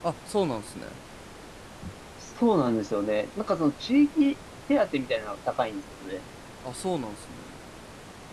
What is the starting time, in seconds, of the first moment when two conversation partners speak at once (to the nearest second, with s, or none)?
none